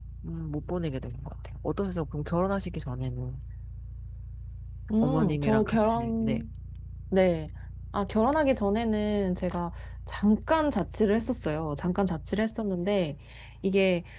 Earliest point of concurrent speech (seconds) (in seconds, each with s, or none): 5.0 s